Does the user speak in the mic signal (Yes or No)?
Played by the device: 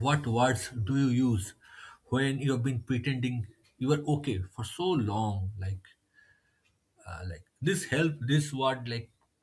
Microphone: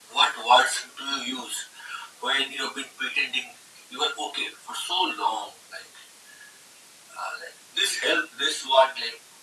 No